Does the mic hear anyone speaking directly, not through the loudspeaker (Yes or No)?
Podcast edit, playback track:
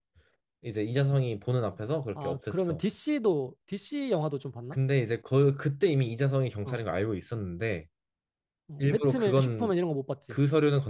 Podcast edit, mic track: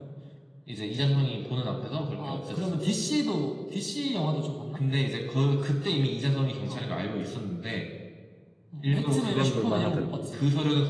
Yes